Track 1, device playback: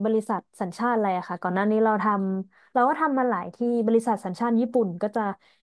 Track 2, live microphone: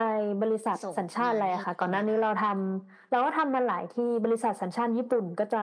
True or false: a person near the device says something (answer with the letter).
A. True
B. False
A